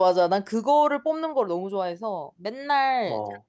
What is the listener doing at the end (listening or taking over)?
listening